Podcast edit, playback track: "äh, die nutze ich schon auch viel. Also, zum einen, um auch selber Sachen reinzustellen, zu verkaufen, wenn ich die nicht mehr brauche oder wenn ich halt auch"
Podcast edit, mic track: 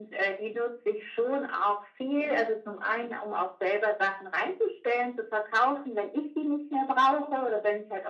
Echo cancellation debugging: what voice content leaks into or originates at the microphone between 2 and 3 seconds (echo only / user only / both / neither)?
echo only